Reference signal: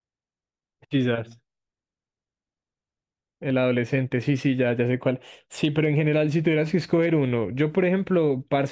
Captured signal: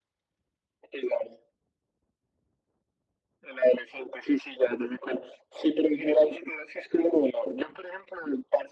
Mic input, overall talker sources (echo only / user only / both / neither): echo only